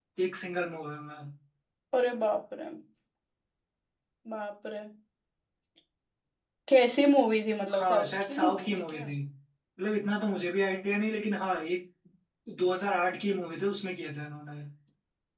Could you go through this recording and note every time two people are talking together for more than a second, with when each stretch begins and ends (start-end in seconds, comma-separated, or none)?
7.7-9.0